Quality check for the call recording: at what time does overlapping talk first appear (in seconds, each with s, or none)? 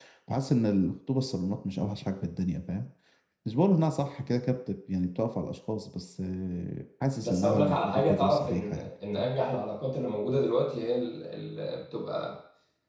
7.2 s